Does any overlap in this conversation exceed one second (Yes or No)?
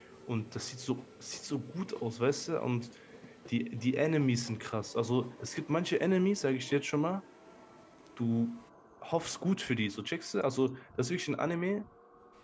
No